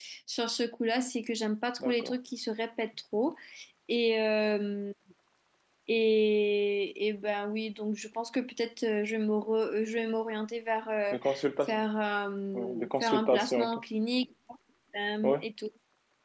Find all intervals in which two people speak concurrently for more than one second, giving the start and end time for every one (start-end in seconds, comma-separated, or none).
12.5-13.8